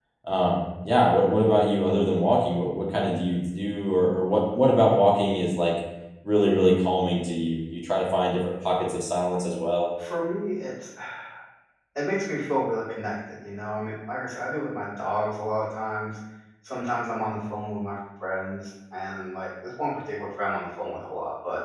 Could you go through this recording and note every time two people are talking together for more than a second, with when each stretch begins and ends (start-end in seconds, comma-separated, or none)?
none